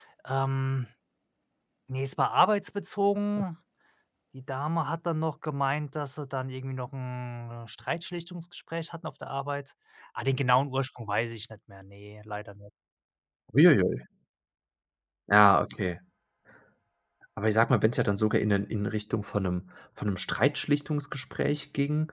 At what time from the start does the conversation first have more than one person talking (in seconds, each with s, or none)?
none